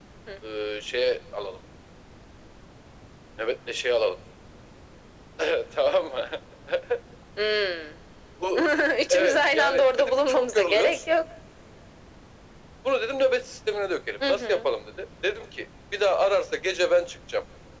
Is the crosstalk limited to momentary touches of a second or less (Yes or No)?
No